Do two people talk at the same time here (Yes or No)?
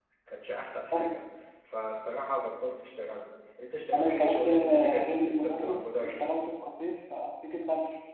Yes